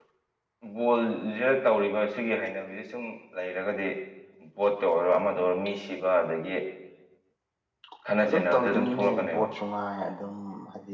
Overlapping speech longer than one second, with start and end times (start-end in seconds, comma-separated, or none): 8.2-9.5